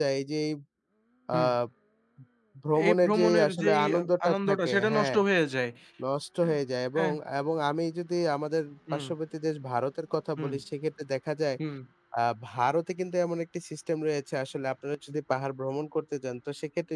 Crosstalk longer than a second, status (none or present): present